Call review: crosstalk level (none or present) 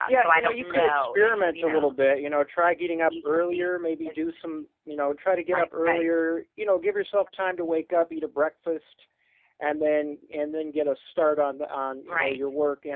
present